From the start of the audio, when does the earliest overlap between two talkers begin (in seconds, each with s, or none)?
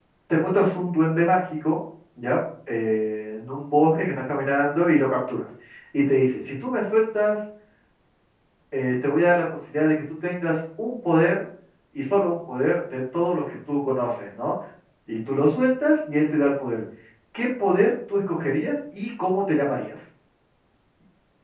none